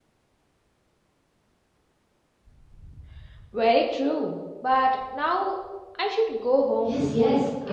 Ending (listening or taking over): taking over